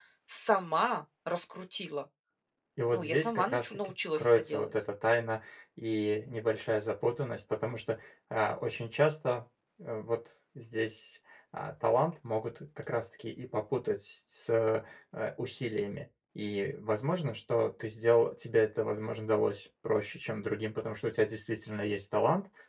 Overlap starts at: 2.9 s

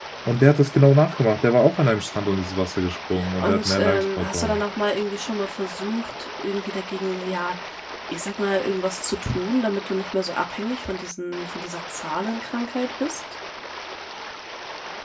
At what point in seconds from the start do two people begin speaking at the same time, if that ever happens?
3.4 s

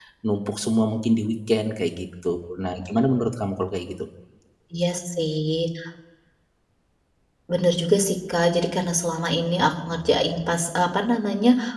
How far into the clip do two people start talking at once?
none

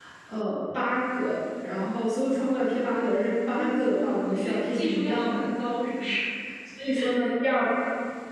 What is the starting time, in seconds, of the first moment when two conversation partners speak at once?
3.5 s

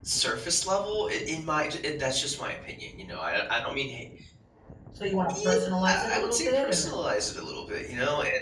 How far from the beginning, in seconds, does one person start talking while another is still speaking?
5.3 s

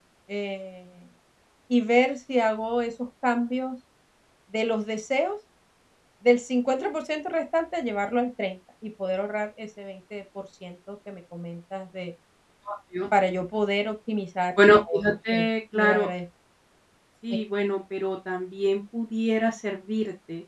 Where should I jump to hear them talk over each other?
14.6 s

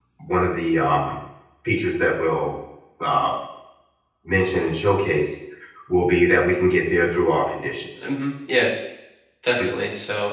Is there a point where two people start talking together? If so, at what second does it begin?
none

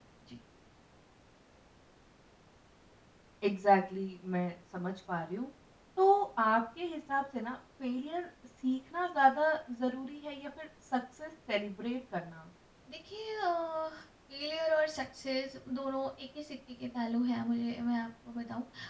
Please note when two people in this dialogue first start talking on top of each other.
none

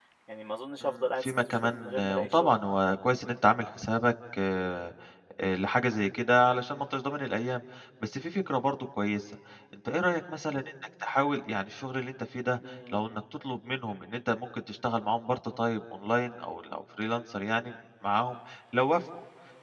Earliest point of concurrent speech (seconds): 0.8 s

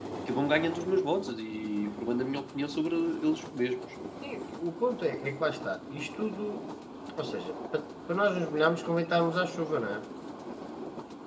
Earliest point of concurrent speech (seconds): none

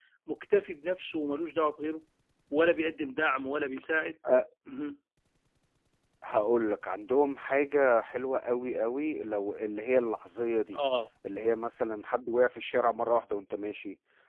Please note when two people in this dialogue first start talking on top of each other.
none

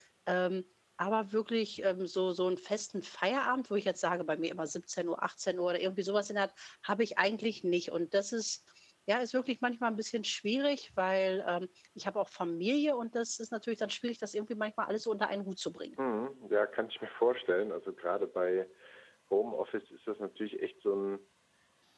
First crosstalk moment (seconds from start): none

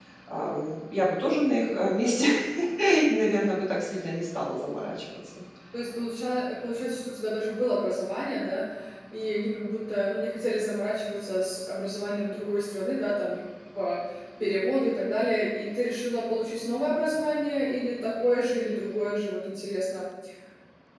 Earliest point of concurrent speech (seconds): none

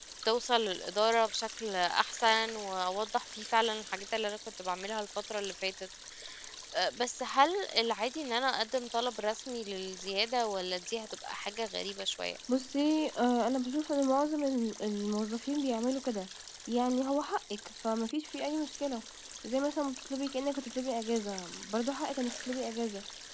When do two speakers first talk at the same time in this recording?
none

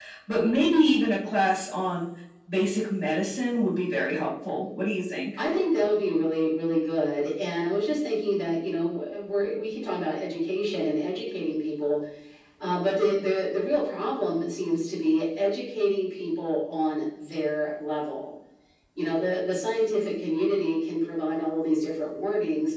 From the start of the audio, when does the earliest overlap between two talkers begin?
none

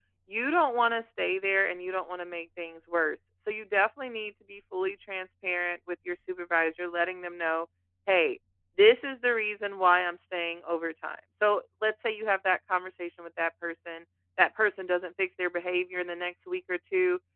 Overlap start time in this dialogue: none

